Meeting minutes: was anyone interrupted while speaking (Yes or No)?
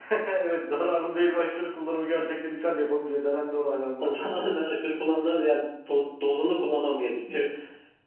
No